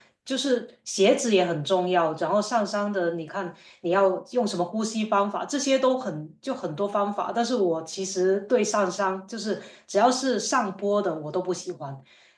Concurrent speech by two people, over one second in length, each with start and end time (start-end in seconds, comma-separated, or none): none